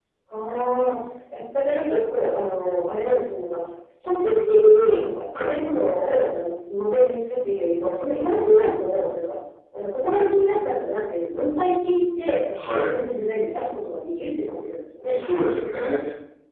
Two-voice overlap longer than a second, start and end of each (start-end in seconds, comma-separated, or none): none